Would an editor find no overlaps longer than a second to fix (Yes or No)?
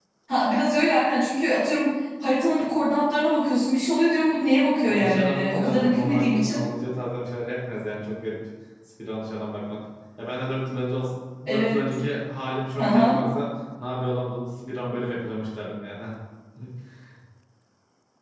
No